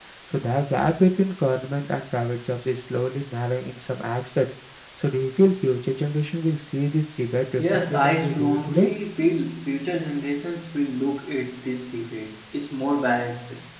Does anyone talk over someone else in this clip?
Yes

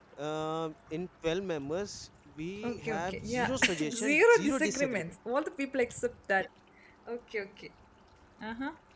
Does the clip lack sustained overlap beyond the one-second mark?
No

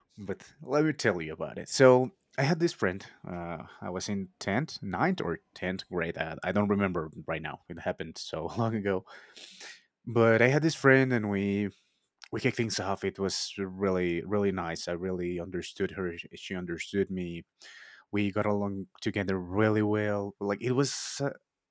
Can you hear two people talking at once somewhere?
No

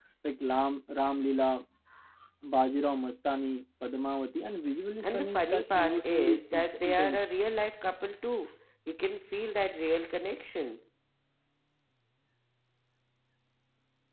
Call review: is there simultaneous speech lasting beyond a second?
Yes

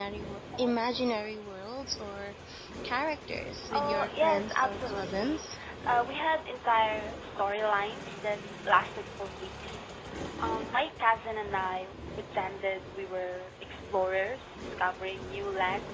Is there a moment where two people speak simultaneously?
Yes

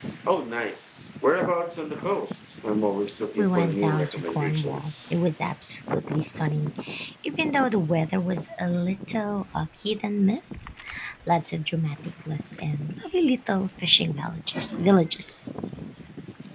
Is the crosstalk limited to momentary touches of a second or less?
No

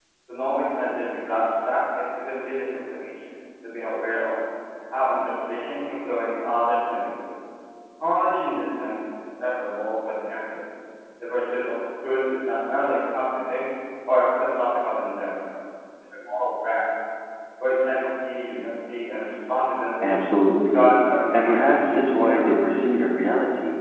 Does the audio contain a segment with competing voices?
Yes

